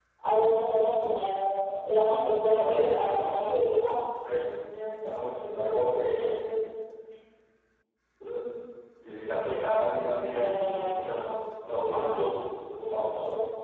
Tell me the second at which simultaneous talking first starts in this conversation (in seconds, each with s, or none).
2.2 s